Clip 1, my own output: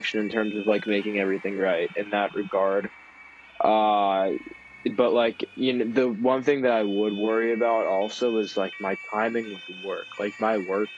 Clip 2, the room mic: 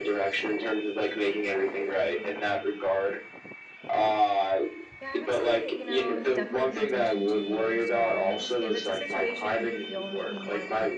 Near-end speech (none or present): present